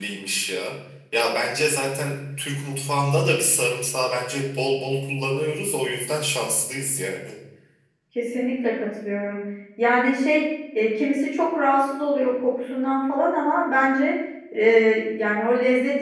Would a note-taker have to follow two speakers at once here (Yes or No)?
No